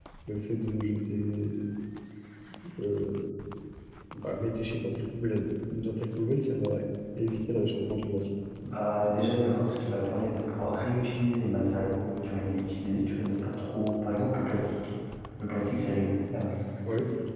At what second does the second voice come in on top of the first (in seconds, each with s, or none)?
none